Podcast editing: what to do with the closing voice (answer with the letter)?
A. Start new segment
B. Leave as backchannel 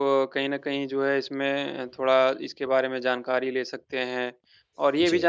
B